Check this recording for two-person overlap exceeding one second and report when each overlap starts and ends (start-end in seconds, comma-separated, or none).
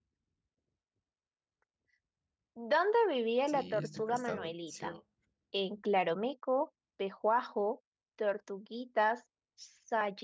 3.5-4.9